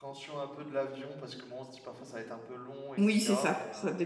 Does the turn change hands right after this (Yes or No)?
Yes